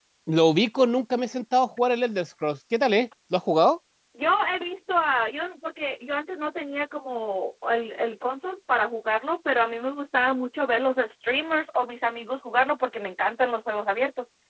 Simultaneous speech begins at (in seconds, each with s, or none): none